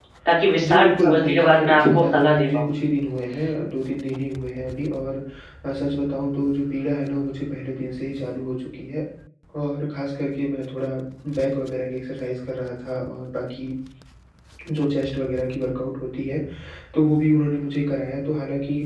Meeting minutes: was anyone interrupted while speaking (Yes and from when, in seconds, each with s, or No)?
Yes, from 0.6 s